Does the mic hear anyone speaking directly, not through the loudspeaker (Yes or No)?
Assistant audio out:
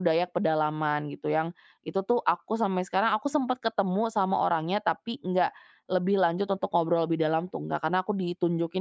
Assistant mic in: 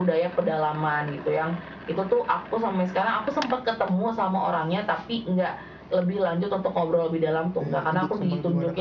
Yes